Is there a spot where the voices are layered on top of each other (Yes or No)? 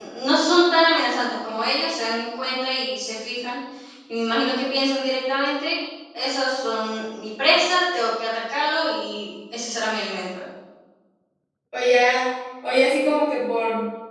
No